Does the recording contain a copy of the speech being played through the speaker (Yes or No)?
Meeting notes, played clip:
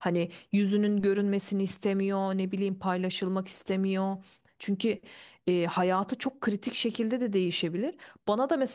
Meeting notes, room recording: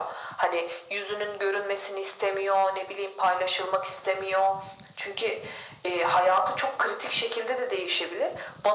Yes